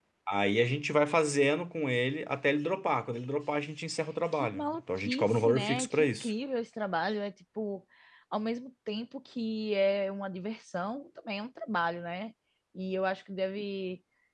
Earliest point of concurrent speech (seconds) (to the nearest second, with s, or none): 4 s